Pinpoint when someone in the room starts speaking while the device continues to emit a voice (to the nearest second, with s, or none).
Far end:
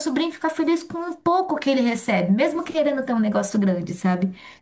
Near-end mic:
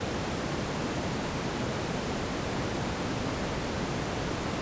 none